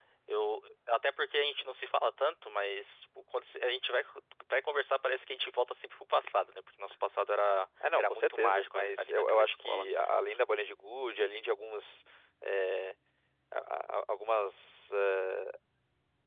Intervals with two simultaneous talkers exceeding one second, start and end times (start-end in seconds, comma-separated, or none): 8.0-9.8